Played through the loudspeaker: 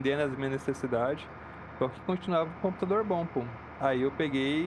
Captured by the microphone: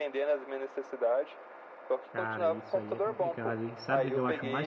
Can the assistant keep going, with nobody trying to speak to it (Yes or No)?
No